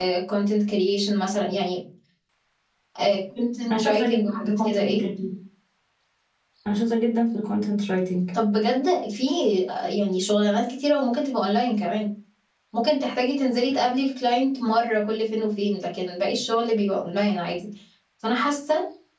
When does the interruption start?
3.7 s

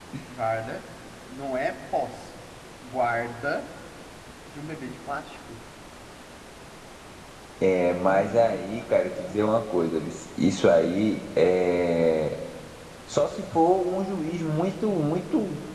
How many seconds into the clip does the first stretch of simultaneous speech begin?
7.9 s

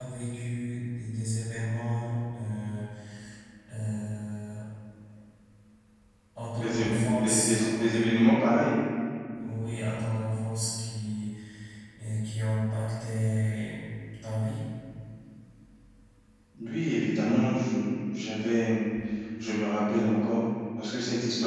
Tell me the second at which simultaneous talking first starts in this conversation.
6.6 s

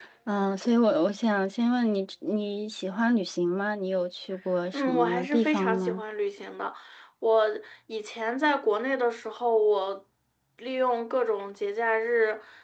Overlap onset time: 4.7 s

